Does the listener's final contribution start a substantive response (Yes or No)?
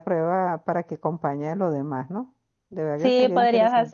Yes